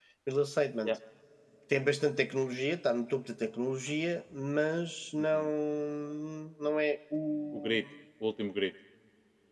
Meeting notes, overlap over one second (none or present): none